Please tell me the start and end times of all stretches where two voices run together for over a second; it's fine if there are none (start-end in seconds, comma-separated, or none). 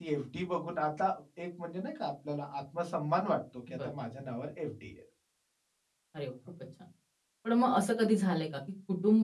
none